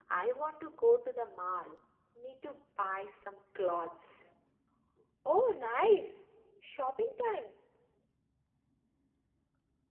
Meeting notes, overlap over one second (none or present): none